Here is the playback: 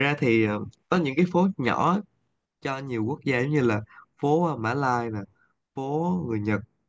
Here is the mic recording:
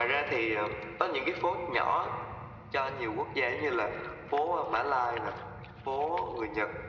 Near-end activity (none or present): none